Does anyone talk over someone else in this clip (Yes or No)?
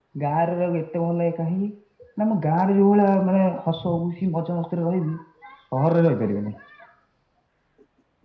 No